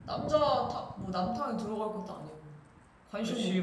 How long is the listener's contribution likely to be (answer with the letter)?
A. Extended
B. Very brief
A